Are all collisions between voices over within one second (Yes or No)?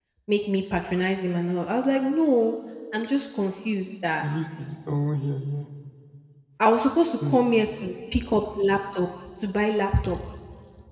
Yes